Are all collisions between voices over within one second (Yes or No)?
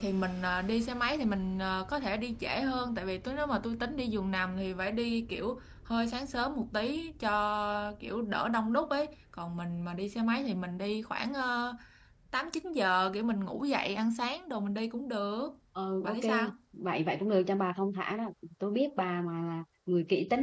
Yes